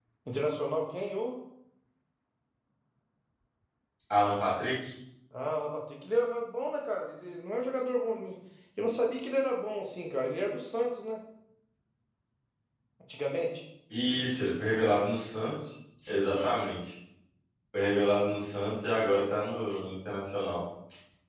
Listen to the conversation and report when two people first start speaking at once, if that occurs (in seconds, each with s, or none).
none